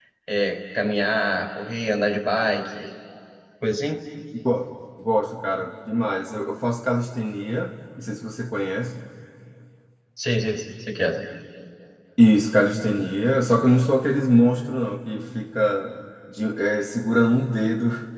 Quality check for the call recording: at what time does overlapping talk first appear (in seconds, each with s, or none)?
none